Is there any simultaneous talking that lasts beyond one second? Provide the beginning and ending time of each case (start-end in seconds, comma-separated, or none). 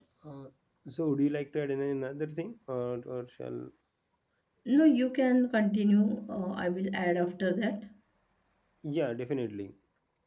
none